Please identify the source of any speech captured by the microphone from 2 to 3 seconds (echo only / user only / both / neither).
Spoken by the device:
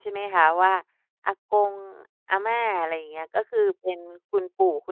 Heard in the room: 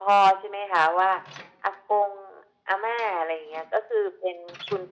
echo only